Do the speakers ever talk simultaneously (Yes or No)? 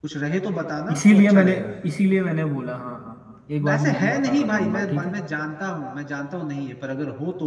Yes